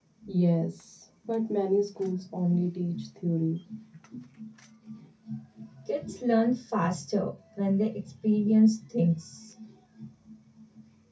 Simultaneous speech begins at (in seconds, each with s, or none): none